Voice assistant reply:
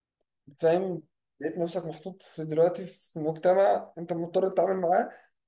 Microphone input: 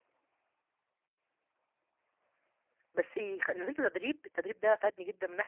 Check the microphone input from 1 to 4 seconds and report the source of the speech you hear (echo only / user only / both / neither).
user only